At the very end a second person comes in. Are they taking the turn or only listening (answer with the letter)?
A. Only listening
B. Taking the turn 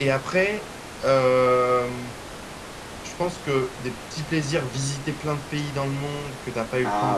A